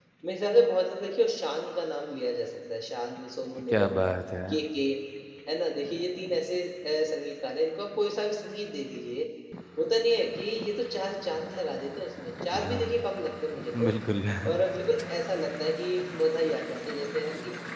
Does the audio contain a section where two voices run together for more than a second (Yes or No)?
No